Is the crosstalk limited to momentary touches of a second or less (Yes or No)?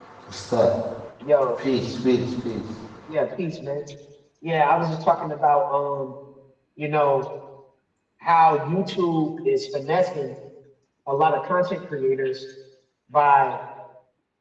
Yes